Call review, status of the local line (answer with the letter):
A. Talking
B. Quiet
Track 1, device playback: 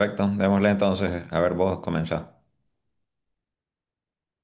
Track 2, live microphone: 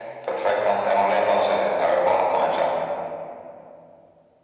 B